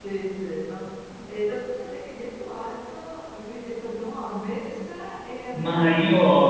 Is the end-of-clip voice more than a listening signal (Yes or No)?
Yes